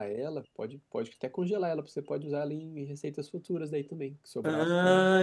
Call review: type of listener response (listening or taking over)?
taking over